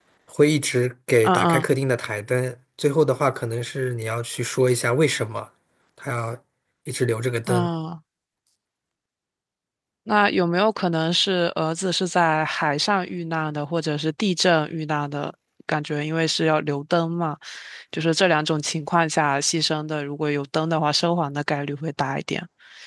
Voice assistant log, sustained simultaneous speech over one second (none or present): none